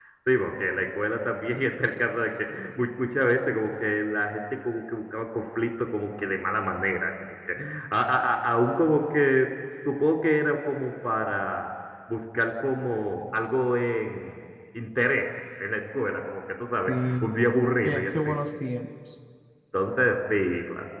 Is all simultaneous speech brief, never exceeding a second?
Yes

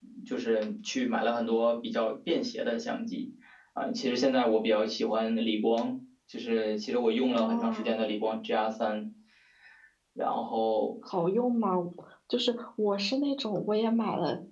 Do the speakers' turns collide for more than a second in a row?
No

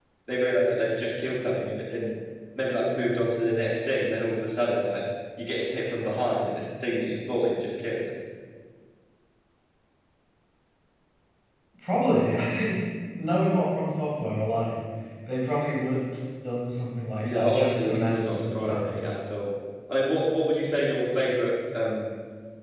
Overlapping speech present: Yes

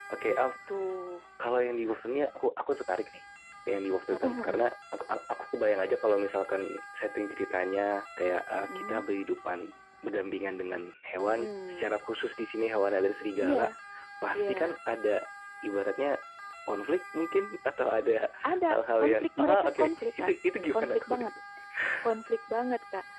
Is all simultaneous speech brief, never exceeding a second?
No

